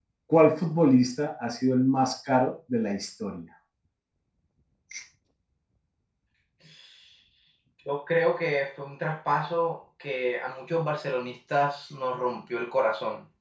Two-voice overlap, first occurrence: none

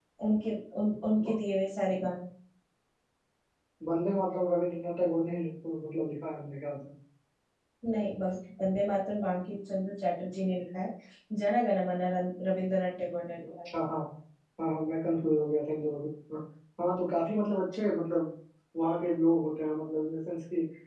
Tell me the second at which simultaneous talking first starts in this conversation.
none

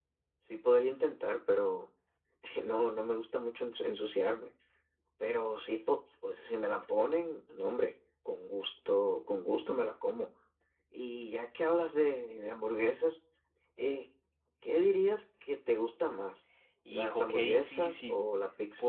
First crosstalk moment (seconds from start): 16.9 s

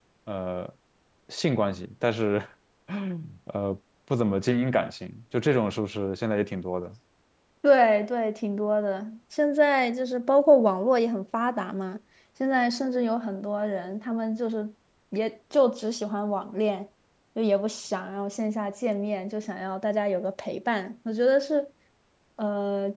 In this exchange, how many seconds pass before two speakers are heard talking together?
none

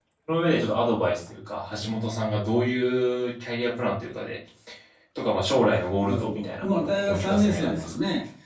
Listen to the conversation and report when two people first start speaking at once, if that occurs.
6.1 s

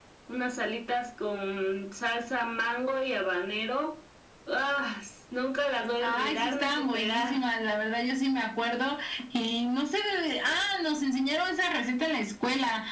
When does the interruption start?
6.0 s

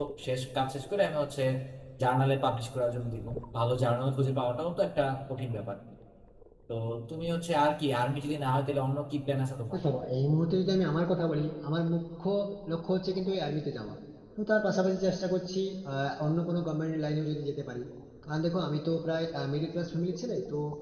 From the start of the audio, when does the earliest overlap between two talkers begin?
none

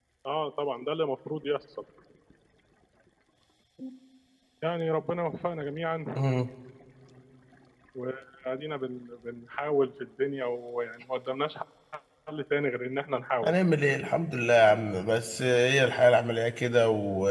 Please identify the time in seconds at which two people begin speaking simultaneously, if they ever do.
none

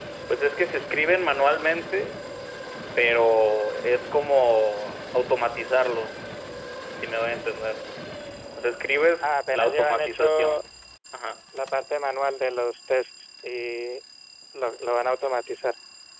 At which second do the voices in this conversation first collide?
9.2 s

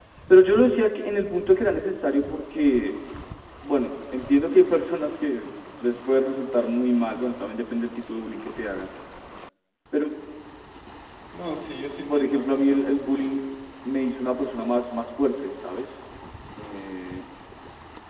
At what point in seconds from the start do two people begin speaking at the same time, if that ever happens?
12.1 s

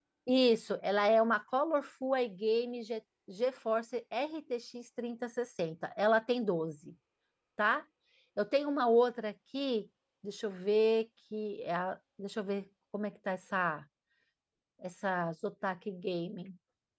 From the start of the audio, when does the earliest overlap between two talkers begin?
none

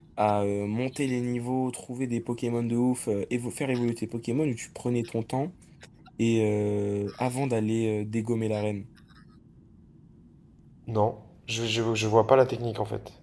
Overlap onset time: none

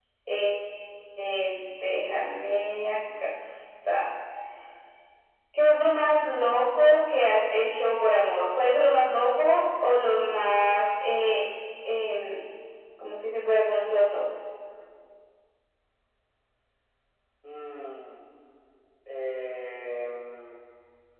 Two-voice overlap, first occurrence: none

